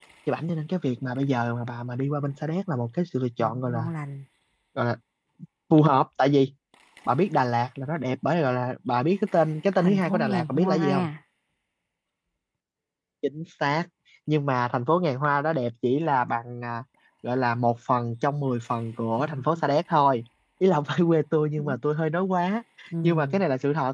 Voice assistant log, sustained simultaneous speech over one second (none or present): present